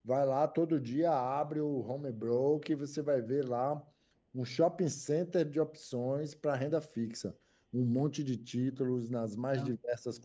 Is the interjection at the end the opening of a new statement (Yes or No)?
No